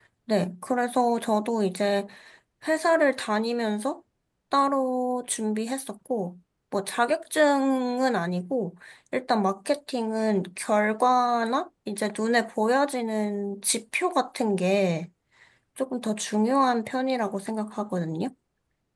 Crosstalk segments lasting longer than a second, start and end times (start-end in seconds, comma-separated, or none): none